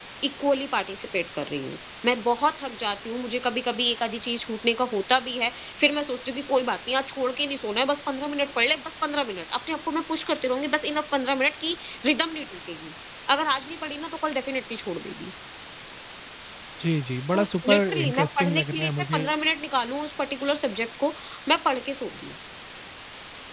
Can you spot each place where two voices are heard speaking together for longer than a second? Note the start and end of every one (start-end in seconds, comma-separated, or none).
17.3-19.2